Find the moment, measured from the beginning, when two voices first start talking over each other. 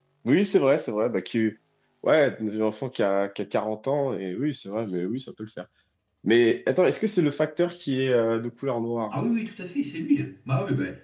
none

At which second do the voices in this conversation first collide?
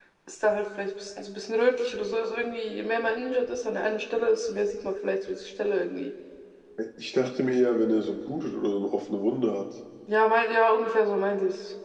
none

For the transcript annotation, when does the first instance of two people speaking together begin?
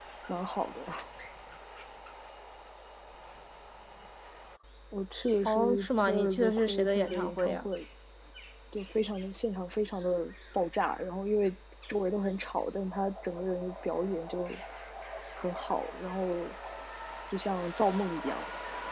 5.5 s

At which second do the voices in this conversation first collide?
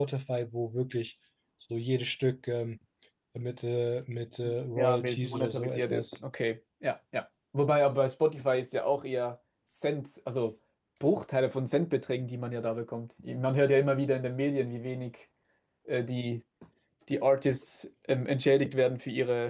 4.8 s

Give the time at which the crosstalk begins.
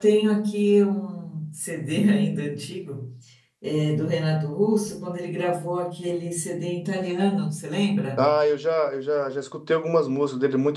none

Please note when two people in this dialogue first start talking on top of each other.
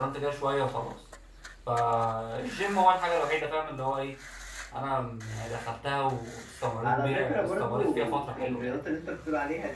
6.8 s

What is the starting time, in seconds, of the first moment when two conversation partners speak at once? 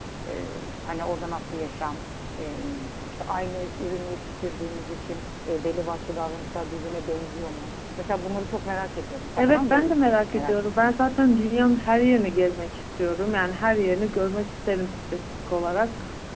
9.4 s

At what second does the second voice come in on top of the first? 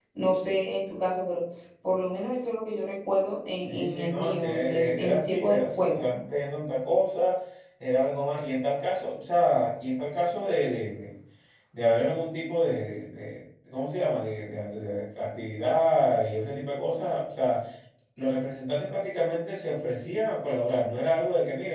3.6 s

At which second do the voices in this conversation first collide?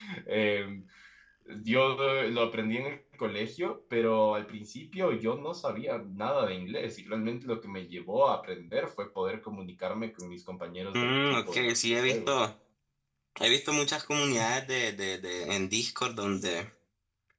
10.9 s

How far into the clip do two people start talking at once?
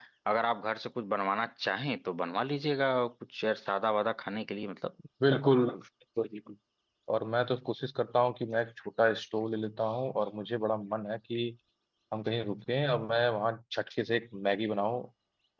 none

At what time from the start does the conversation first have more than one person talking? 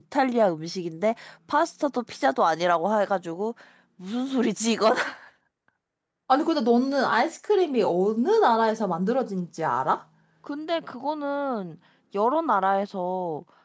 none

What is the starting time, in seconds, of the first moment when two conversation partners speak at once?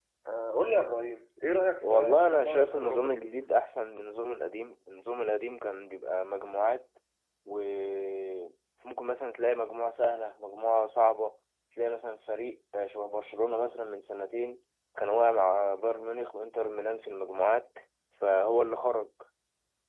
1.8 s

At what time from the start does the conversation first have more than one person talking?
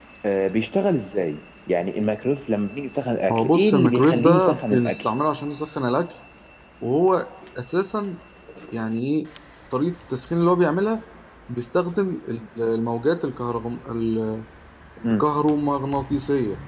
3.3 s

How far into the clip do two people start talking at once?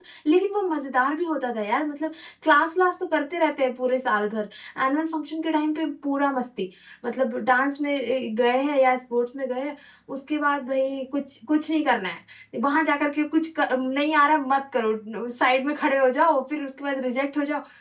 none

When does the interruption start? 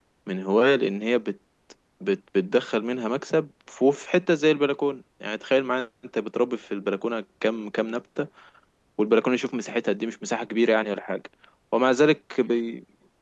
none

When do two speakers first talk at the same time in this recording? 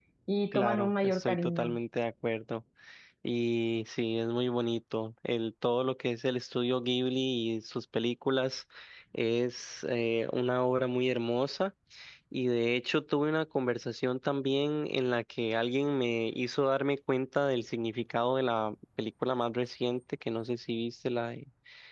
0.5 s

